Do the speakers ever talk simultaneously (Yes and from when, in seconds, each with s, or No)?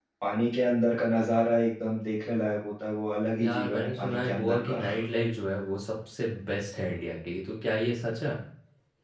Yes, from 3.4 s